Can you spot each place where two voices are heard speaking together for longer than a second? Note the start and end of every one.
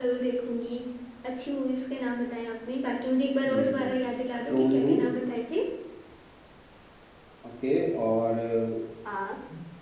none

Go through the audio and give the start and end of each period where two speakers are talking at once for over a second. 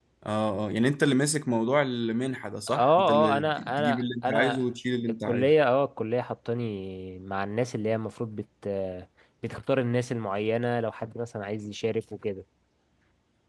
2.7-4.6

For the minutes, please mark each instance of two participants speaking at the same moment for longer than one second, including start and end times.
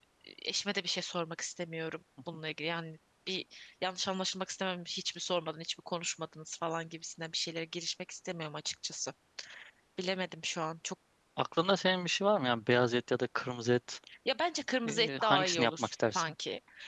14.9-16.3

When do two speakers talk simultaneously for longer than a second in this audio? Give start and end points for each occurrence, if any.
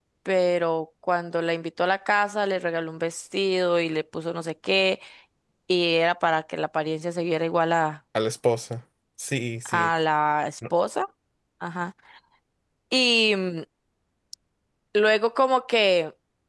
none

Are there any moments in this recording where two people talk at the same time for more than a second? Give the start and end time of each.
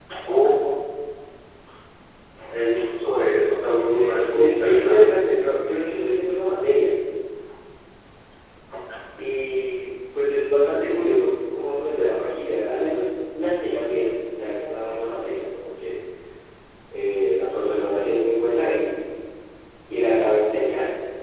3.4-5.2

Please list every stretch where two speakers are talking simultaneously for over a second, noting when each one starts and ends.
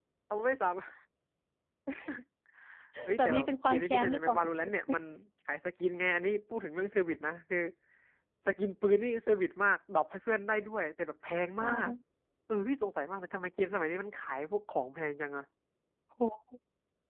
3.2-4.4

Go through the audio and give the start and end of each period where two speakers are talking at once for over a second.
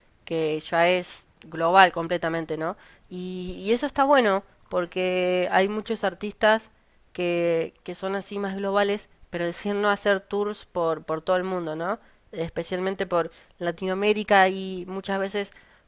none

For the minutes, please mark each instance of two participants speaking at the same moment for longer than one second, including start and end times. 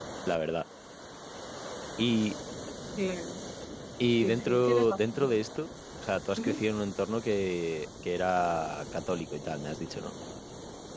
4.1-5.4

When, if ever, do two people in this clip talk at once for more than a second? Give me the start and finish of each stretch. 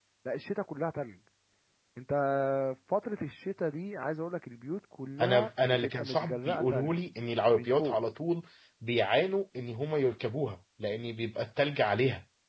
5.2-6.9

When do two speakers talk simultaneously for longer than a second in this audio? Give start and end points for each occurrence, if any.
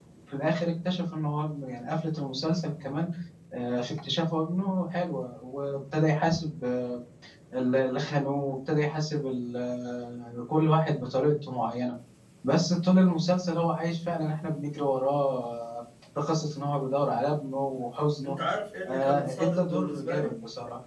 18.9-20.3

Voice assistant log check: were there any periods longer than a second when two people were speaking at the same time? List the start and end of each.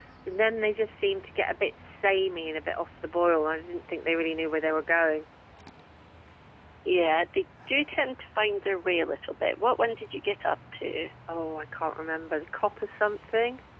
none

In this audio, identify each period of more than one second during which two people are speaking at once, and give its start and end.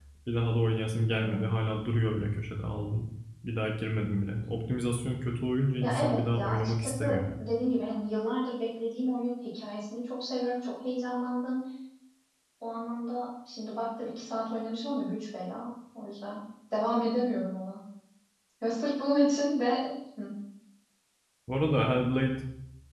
5.8-7.4

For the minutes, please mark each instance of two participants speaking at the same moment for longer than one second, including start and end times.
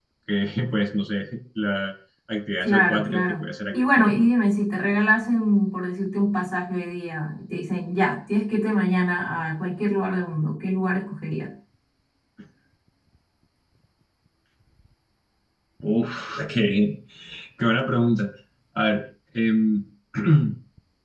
2.6-4.1

